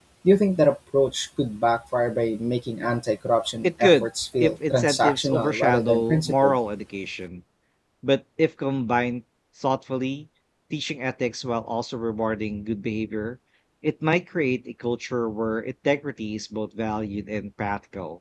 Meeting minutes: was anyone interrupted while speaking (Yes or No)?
Yes